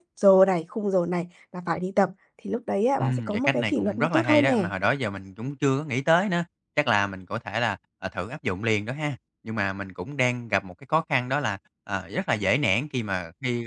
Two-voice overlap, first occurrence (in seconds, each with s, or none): 3.0 s